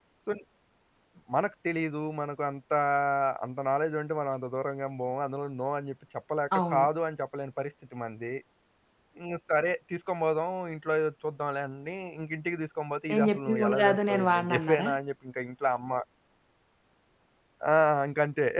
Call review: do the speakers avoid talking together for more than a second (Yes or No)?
No